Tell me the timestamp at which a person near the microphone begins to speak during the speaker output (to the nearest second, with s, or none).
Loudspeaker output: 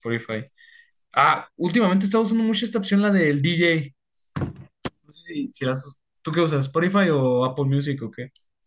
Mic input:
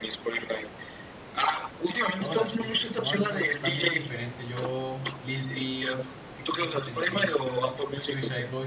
2 s